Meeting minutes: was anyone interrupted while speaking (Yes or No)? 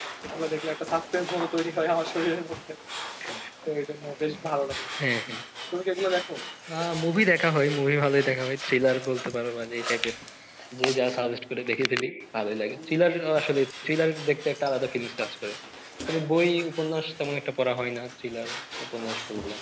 No